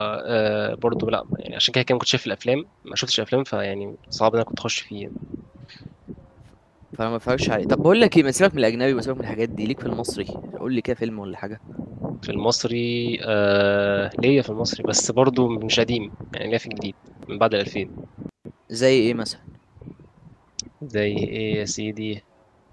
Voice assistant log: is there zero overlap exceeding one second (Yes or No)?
Yes